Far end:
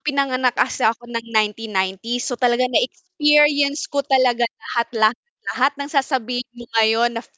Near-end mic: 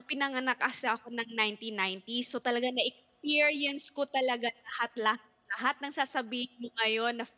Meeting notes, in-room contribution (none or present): none